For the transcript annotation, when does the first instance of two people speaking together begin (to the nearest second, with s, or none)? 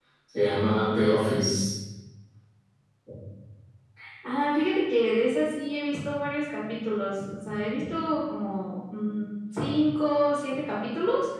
none